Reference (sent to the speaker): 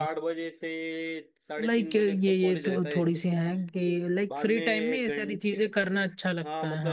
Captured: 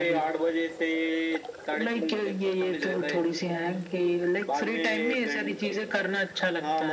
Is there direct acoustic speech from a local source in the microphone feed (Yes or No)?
No